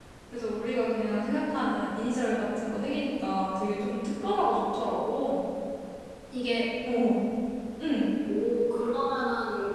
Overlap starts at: none

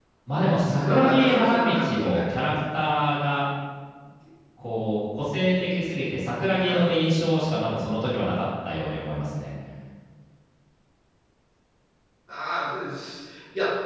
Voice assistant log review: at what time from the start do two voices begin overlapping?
0.8 s

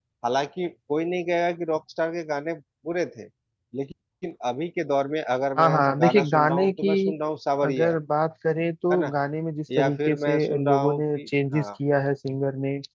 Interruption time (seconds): 5.6 s

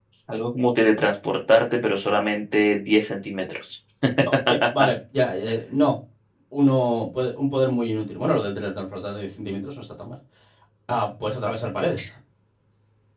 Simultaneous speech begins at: none

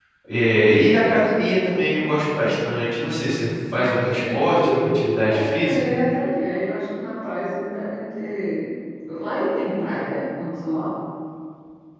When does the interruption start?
3.8 s

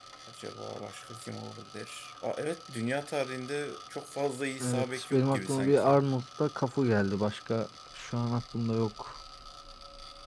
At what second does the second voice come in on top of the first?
4.6 s

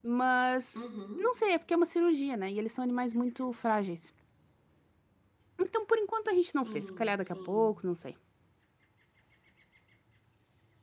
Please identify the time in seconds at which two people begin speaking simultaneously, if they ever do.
6.4 s

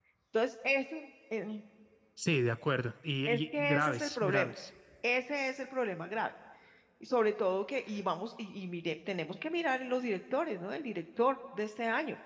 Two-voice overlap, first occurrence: 3.2 s

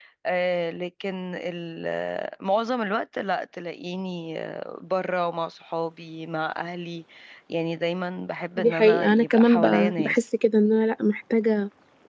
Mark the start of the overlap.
8.6 s

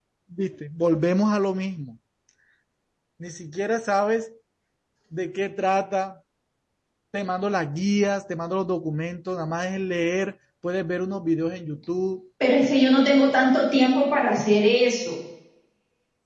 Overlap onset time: none

